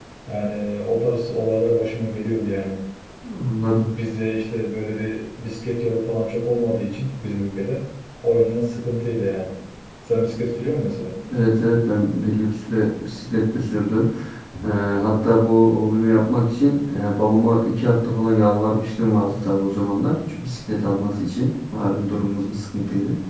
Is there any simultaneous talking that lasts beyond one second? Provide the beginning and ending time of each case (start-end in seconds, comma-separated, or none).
none